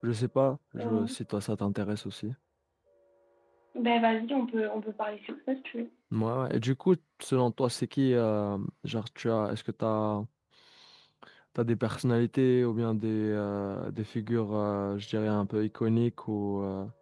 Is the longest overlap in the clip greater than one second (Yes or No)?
No